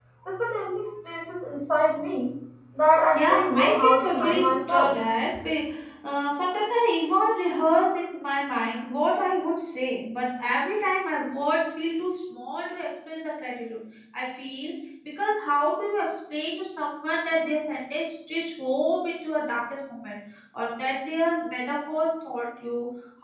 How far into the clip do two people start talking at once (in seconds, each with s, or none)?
3.1 s